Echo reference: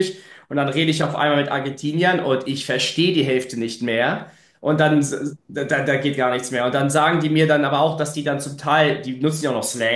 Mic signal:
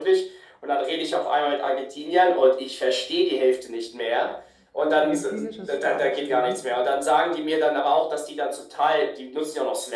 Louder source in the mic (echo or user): echo